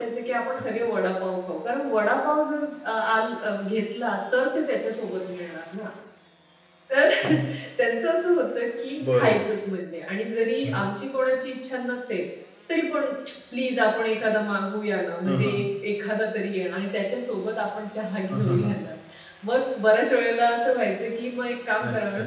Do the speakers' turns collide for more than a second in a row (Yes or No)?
No